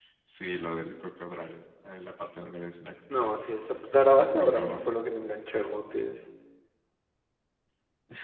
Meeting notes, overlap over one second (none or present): none